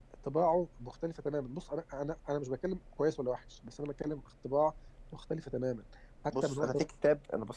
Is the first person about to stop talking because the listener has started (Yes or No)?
Yes